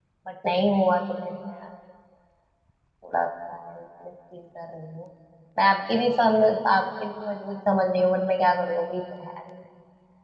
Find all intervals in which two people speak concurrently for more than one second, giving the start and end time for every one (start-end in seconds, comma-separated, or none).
none